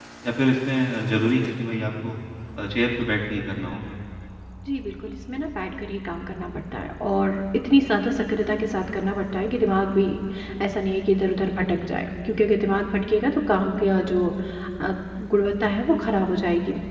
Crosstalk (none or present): none